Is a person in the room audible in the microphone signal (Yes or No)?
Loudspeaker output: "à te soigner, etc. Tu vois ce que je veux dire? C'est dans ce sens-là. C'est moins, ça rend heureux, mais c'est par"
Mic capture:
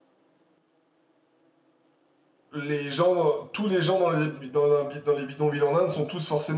Yes